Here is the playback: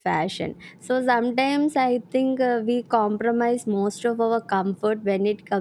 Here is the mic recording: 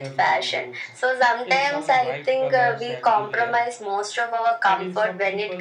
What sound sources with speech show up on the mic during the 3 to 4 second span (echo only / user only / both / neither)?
both